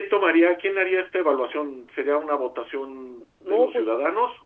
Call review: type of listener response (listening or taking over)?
listening